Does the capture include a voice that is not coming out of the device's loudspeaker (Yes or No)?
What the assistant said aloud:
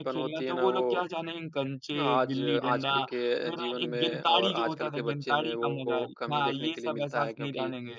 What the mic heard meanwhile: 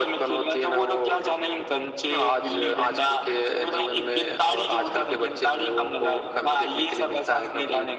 No